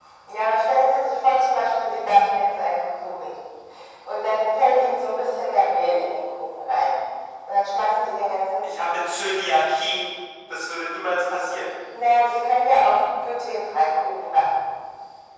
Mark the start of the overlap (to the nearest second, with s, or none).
none